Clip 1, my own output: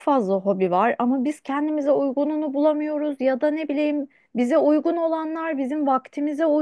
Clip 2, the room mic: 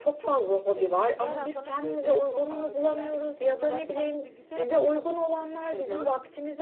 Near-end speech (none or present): present